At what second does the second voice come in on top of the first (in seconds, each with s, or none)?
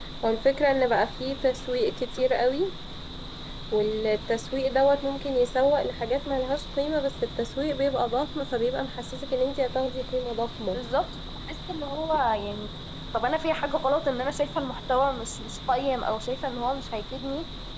none